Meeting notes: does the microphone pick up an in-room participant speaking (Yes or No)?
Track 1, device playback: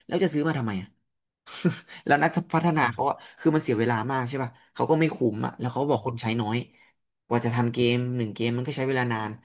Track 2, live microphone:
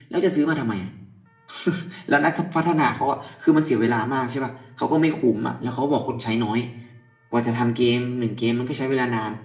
No